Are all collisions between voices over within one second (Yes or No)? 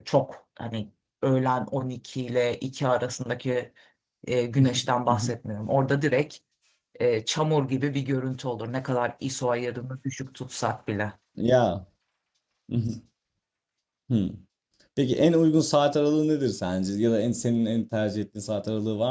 Yes